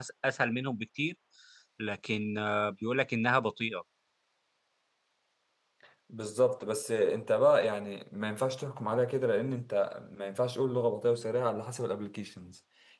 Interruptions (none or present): none